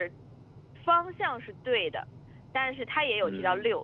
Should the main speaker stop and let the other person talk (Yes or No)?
No